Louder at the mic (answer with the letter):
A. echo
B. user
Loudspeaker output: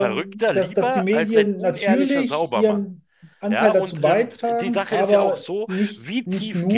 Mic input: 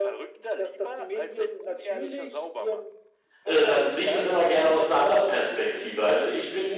B